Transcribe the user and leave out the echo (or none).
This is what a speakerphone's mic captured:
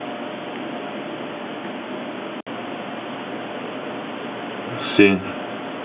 Sì.